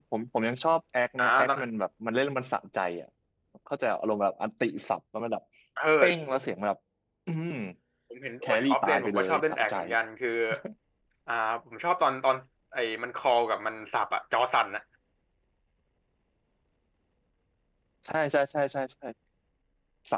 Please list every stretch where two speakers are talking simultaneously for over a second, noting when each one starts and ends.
8.4-9.7

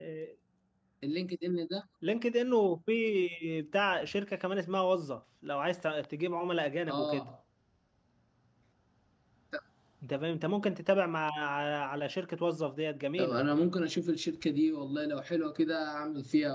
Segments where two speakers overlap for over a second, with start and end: none

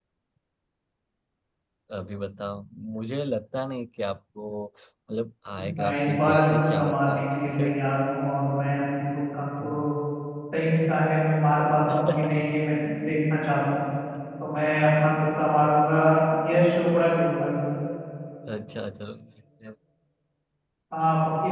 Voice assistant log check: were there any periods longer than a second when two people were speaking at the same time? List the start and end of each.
5.8-7.2

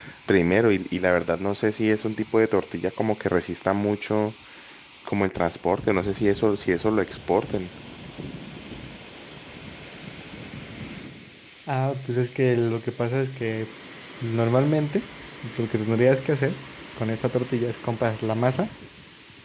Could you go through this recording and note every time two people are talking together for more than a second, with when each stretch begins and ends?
none

